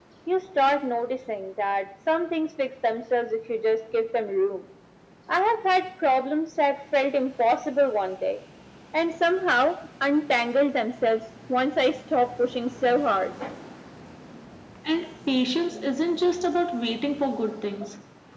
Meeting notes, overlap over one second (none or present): none